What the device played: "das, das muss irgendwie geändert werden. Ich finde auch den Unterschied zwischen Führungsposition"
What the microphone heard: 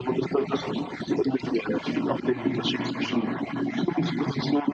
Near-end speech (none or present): present